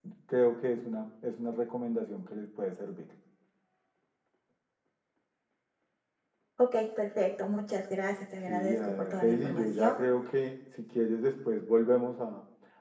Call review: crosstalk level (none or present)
present